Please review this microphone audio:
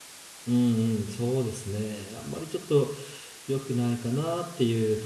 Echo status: none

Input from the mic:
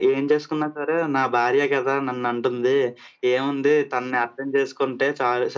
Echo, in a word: present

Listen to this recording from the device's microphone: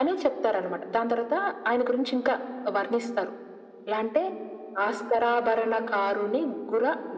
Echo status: present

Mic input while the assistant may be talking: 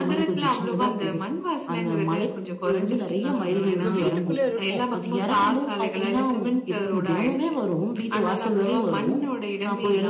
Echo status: present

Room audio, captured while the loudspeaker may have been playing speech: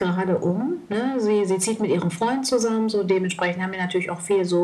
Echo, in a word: present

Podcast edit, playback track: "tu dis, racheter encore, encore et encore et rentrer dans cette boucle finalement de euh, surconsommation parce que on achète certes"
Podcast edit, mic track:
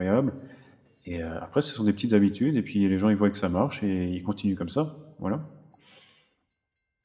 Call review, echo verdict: none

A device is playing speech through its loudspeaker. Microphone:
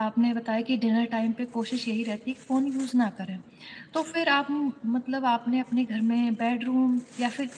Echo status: none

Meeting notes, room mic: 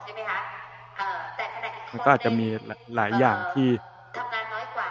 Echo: present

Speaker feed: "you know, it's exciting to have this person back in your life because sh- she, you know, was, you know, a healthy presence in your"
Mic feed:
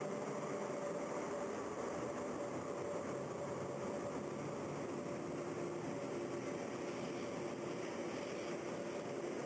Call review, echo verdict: none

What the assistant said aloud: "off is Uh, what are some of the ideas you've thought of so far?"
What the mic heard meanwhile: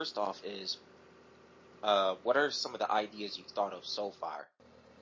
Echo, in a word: present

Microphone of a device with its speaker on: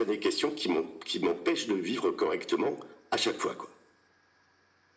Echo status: present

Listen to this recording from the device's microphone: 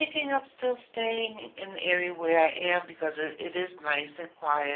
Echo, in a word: none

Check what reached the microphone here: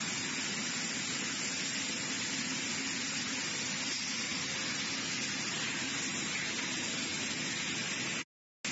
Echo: none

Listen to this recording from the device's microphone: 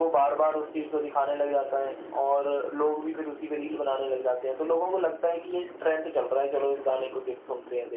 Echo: present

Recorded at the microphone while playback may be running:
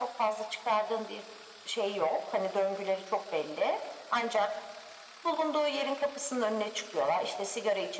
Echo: present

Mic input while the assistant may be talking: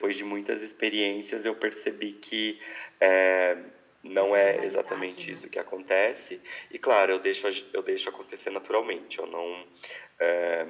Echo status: present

